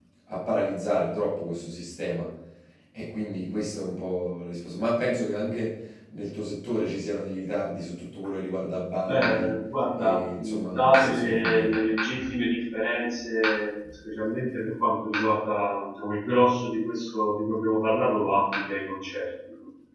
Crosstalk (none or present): present